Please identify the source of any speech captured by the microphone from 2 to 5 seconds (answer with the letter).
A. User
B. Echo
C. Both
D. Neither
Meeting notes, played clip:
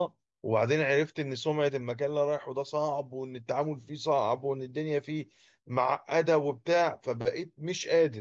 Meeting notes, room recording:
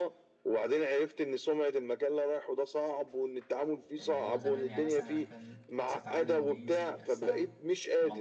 C